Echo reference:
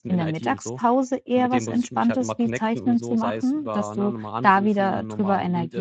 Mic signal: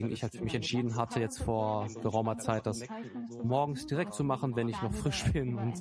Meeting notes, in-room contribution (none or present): present